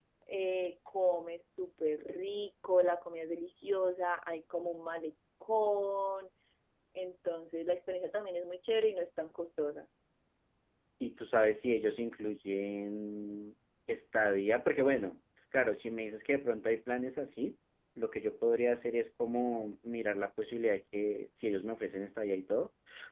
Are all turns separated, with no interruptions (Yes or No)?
Yes